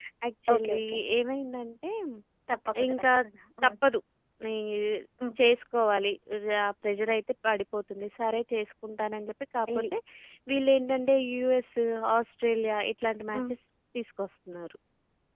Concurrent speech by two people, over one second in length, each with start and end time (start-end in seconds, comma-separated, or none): none